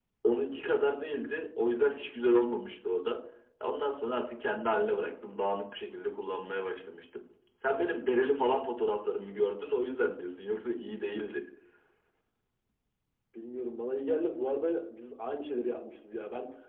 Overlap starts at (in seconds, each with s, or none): none